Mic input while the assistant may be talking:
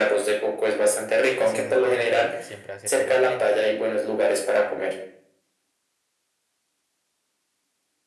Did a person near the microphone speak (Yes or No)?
Yes